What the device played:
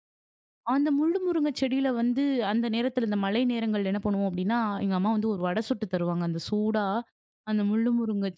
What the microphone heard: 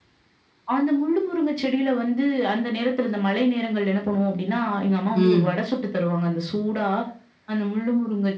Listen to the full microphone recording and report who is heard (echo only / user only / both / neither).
both